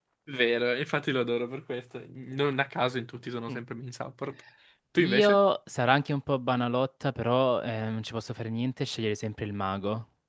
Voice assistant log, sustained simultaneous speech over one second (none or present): none